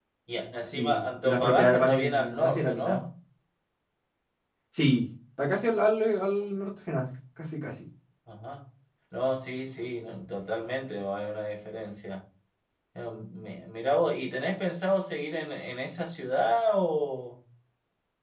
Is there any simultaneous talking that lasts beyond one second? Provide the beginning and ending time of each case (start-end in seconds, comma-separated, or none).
0.7-3.0